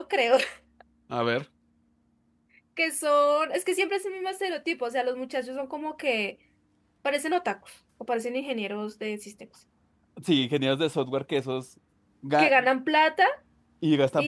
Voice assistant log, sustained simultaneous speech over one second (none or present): none